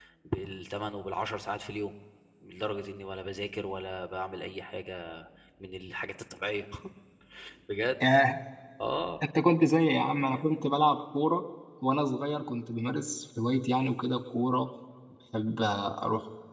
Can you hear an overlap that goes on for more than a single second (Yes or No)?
No